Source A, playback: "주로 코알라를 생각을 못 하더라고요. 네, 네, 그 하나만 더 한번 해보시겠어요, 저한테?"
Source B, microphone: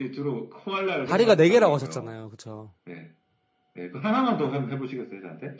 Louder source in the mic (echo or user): user